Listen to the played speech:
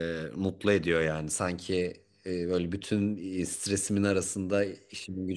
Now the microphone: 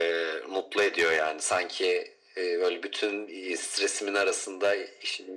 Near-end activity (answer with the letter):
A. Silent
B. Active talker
A